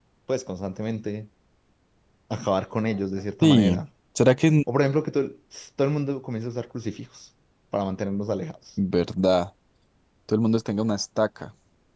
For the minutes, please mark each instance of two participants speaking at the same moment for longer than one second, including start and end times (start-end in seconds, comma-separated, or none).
none